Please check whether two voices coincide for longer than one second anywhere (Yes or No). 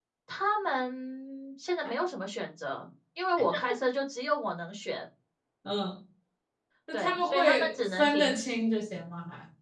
Yes